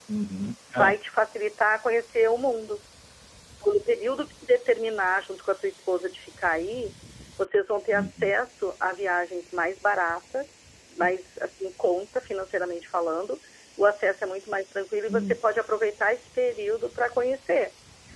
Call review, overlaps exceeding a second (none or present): none